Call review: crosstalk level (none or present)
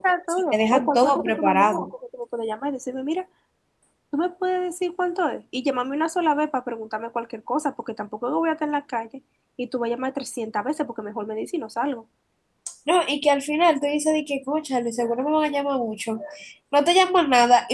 present